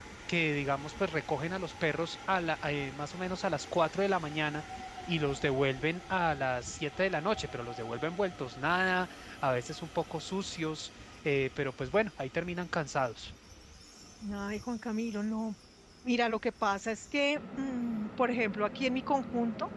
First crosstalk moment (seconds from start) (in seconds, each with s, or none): none